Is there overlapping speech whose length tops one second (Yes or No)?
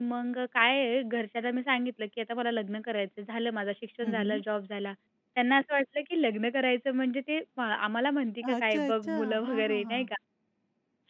Yes